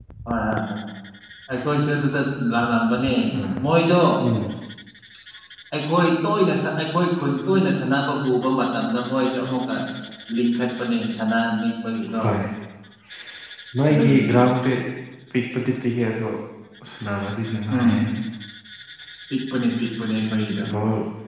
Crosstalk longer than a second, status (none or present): none